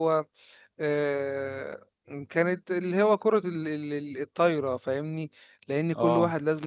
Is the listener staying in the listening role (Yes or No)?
Yes